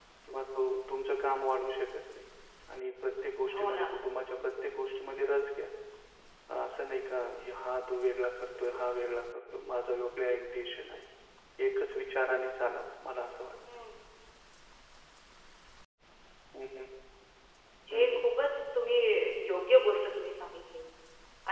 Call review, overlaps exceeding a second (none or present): none